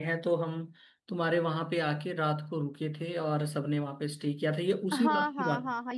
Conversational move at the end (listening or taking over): taking over